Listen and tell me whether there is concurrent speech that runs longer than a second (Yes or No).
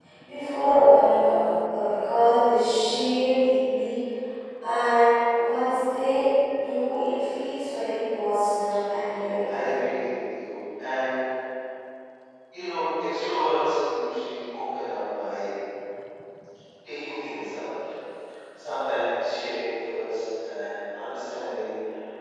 No